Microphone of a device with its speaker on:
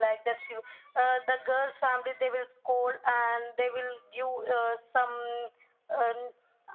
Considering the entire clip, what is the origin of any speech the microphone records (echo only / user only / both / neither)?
echo only